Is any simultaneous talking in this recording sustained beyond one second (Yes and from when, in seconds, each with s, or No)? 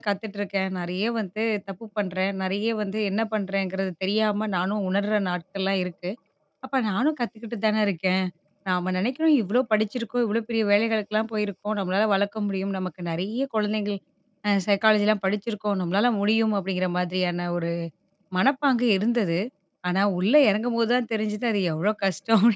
No